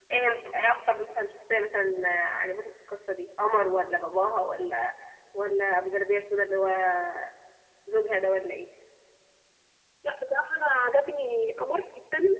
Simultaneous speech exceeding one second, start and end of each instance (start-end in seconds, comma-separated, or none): none